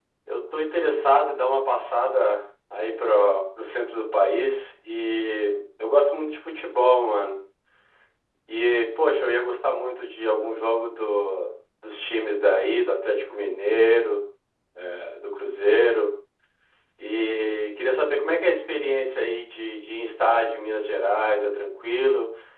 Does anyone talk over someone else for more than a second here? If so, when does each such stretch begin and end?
none

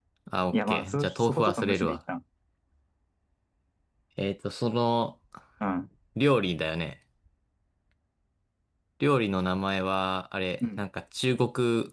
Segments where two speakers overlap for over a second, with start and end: 0.5-2.0

